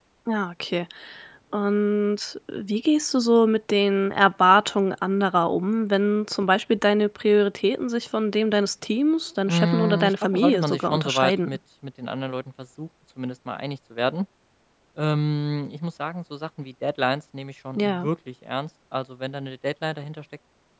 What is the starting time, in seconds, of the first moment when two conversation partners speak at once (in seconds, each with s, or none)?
9.5 s